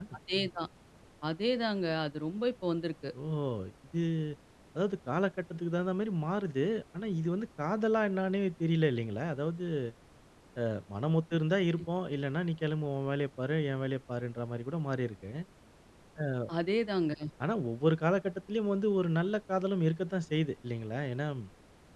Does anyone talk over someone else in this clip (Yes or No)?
No